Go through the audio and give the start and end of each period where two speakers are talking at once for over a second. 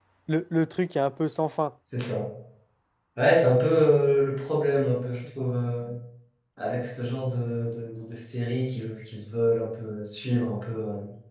none

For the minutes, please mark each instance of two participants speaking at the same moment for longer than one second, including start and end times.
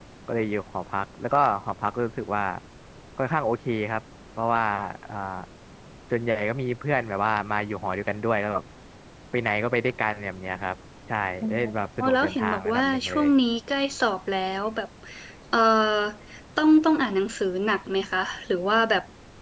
12.0-13.3

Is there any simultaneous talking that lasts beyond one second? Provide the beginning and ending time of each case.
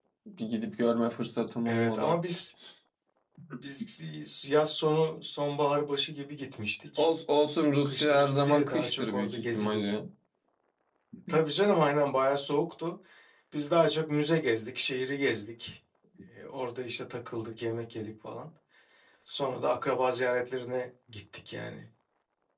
7.8-9.8

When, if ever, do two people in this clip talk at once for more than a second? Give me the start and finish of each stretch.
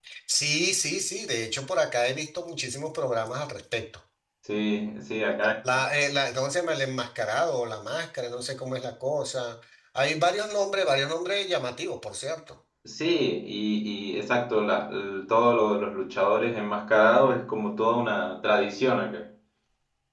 none

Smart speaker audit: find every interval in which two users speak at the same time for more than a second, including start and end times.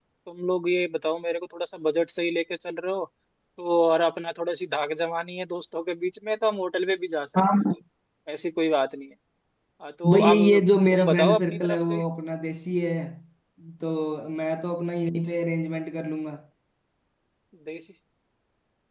10.1-12.0

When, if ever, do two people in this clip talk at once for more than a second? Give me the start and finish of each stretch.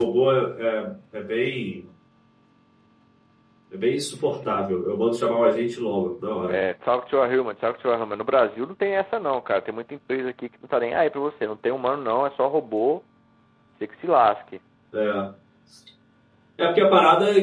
none

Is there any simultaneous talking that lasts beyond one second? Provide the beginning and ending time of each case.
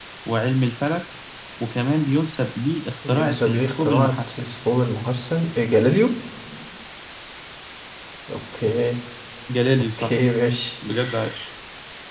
3.1-4.4

